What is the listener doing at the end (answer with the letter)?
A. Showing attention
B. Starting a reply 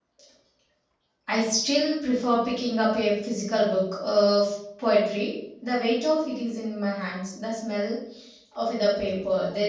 A